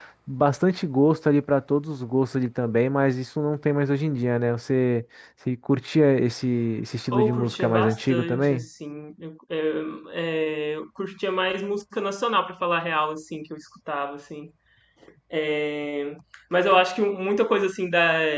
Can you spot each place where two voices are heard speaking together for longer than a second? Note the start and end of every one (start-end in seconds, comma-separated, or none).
7.1-8.7